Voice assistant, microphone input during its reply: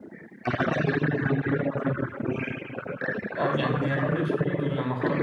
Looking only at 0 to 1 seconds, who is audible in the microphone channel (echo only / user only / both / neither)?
echo only